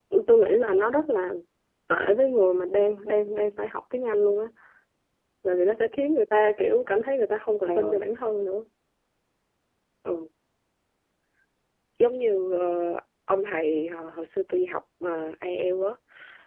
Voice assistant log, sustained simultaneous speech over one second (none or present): none